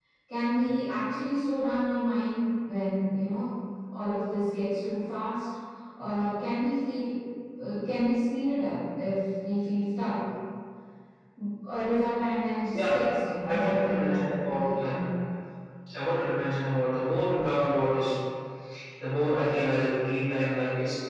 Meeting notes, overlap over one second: present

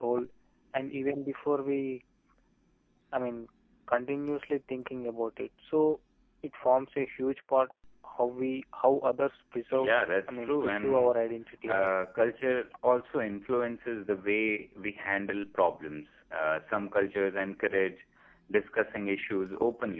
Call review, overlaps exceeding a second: present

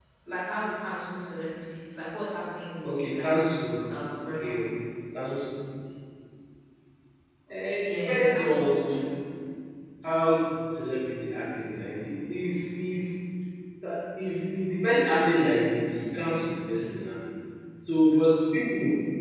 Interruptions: present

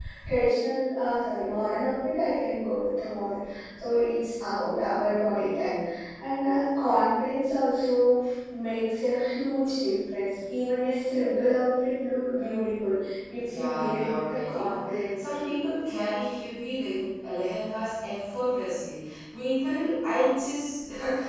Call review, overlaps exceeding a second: present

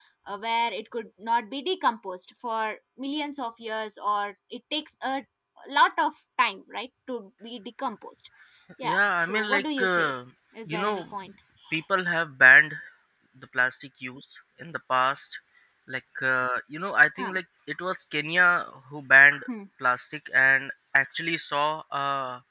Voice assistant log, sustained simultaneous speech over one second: present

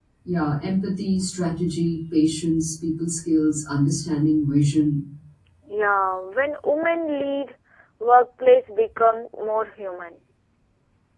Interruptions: none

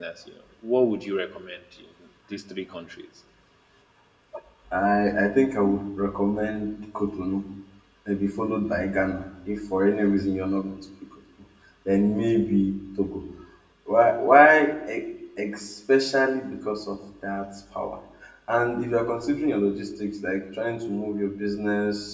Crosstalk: none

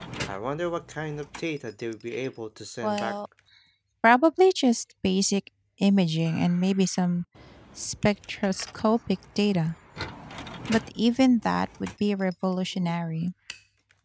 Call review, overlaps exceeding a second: none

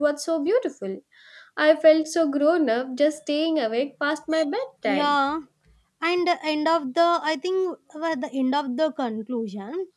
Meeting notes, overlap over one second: none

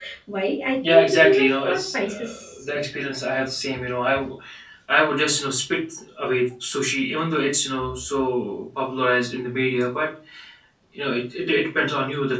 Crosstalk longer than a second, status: present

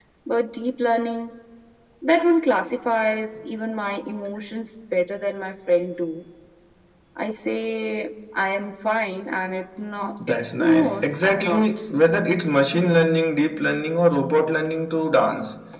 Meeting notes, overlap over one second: present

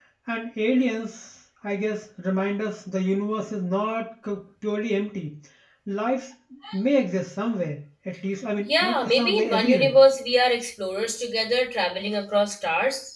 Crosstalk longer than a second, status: present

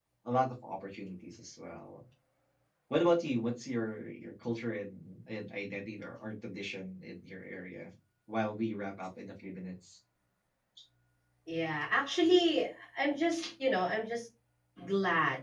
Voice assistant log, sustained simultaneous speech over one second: none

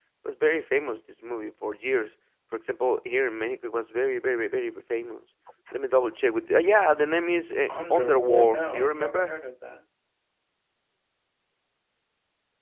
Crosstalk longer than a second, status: present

